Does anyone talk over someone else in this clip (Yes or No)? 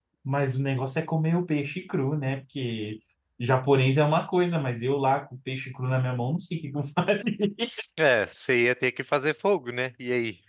No